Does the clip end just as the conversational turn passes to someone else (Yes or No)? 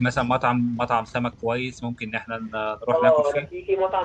Yes